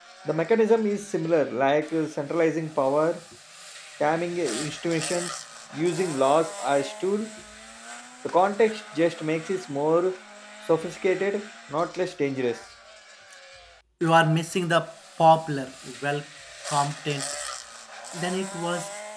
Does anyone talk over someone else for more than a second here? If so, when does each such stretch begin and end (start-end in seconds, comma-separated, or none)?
none